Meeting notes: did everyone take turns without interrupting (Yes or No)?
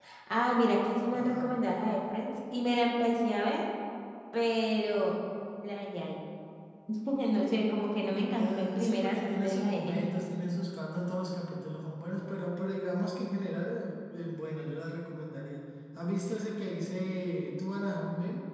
No